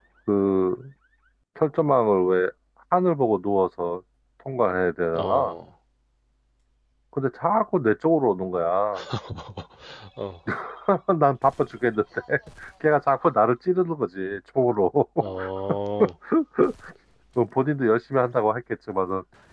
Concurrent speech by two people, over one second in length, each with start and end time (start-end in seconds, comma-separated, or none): none